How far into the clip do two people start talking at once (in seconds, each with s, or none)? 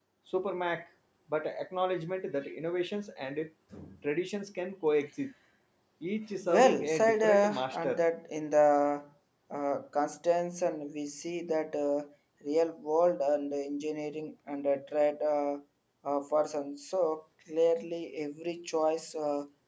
6.5 s